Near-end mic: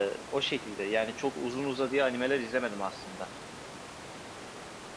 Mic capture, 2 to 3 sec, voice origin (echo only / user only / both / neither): user only